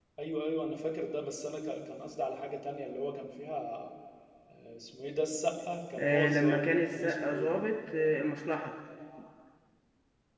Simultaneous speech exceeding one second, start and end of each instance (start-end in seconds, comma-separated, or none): 6.0-7.6